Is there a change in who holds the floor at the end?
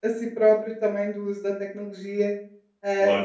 No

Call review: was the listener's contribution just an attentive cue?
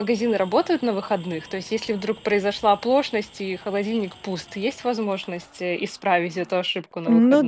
No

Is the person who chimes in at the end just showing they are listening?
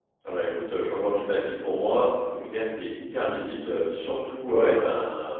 Yes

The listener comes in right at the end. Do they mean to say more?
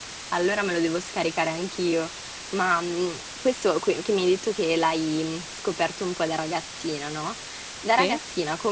No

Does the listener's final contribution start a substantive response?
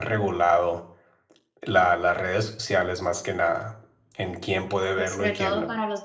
Yes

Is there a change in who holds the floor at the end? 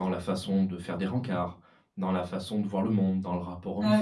Yes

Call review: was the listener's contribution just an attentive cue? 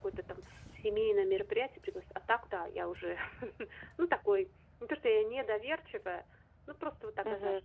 No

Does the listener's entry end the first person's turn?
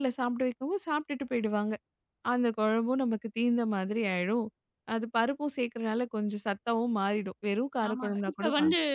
Yes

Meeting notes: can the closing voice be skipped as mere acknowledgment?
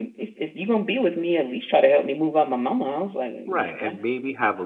No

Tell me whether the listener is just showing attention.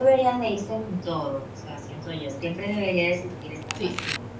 Yes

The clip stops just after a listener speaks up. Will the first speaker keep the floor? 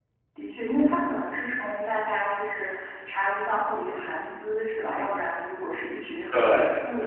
Yes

